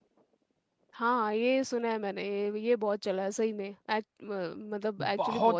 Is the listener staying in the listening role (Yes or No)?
No